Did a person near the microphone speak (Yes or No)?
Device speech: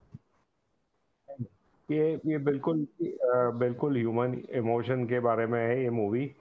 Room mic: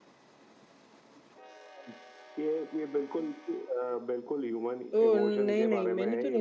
Yes